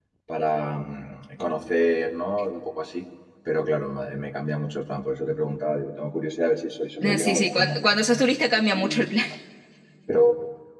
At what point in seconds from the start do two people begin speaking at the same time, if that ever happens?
7 s

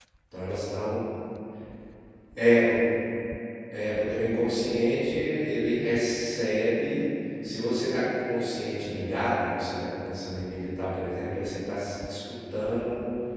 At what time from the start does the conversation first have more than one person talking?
none

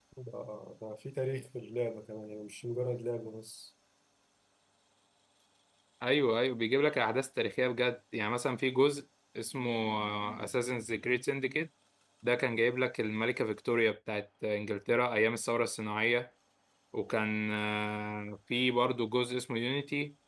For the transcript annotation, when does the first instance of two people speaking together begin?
none

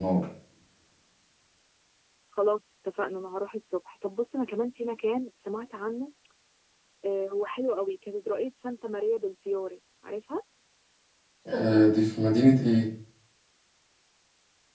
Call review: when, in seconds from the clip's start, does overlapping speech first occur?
none

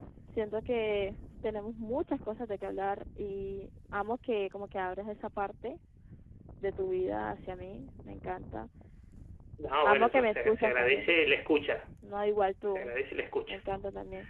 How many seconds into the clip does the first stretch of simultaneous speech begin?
10 s

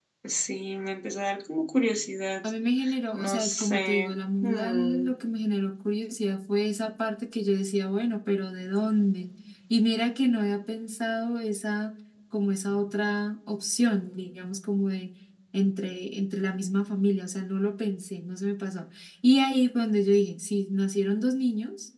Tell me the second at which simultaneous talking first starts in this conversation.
3 s

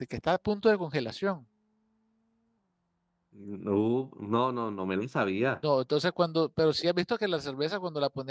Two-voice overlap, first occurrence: none

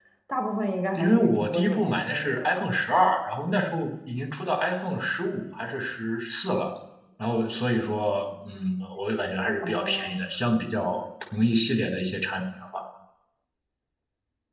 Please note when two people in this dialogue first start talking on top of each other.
1 s

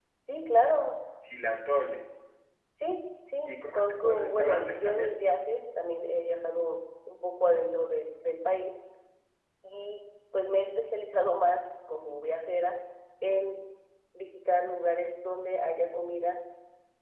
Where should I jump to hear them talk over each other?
3 s

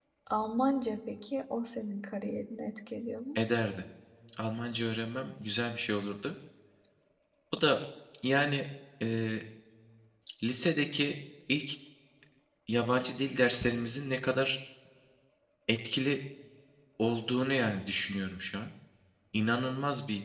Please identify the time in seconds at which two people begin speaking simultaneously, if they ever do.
none

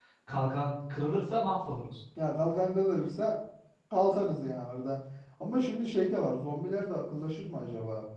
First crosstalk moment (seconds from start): none

